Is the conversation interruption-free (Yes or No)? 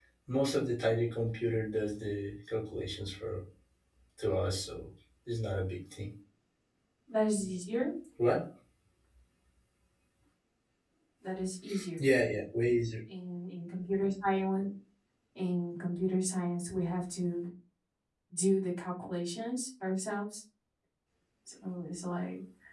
Yes